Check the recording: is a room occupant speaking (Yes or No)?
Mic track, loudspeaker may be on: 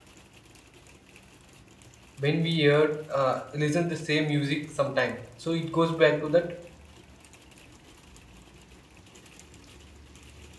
Yes